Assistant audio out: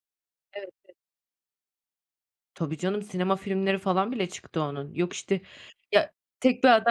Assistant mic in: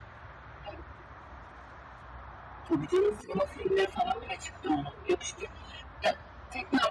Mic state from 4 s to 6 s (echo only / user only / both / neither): echo only